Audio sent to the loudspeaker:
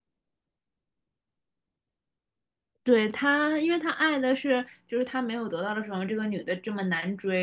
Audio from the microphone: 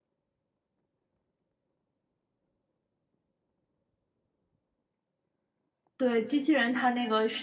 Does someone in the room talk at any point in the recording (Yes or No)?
Yes